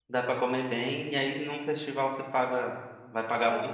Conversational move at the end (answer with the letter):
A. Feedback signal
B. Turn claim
A